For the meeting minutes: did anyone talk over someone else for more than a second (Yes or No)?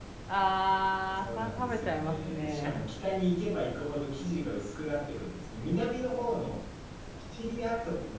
Yes